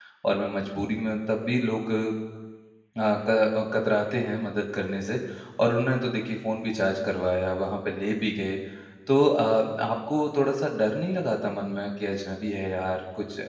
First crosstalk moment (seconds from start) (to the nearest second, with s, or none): none